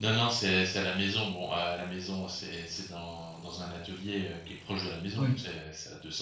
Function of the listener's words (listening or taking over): listening